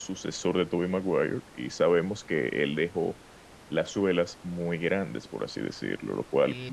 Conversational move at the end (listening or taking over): taking over